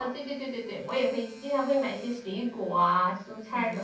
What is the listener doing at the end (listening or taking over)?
taking over